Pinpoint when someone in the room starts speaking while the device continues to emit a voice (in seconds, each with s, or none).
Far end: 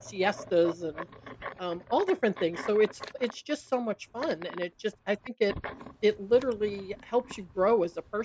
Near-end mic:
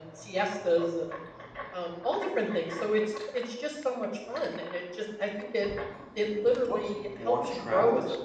6.5 s